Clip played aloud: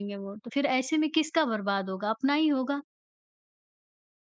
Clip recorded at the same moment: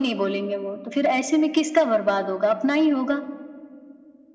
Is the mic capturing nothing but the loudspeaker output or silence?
Yes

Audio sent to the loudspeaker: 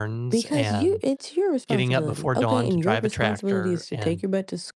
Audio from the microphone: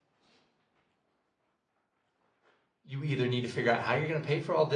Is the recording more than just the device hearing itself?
Yes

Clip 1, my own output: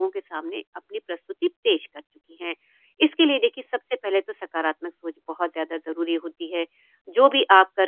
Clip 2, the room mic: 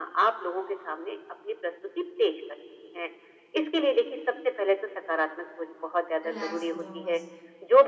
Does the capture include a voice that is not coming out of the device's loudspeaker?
Yes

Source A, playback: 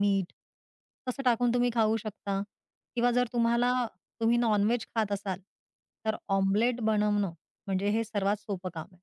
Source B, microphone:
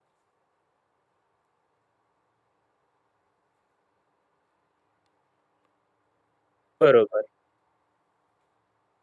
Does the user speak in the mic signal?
Yes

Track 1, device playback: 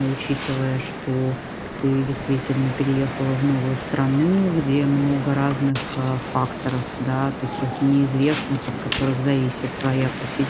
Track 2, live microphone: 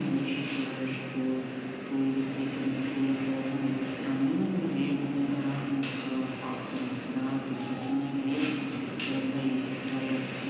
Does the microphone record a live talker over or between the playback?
No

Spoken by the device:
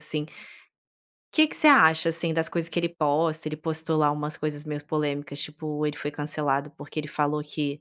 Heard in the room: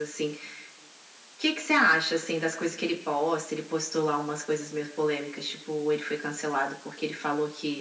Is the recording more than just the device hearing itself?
No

